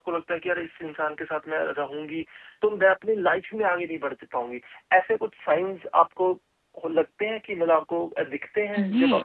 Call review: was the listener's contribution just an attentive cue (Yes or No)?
No